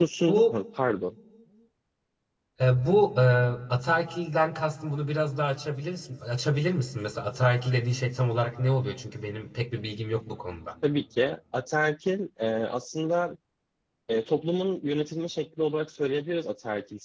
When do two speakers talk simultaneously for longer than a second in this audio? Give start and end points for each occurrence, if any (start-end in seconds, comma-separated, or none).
none